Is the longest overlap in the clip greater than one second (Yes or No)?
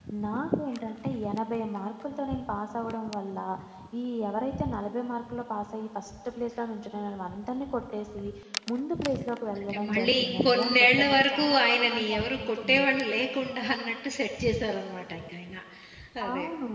Yes